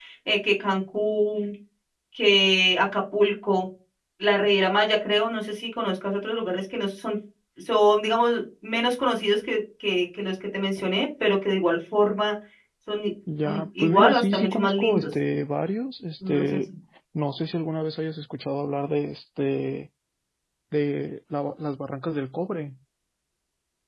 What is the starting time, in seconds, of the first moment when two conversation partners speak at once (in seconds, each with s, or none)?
13.4 s